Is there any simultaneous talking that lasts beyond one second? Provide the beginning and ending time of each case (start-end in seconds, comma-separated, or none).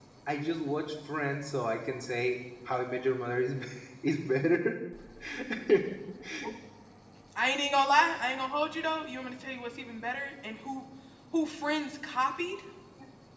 none